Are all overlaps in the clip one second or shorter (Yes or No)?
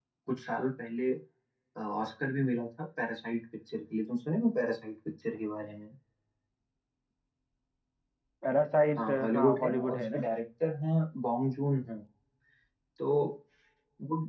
No